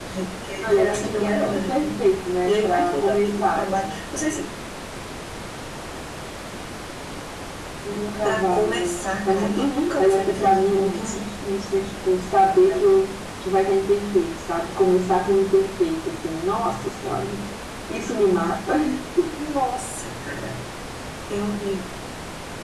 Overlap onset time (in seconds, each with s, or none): 0.6 s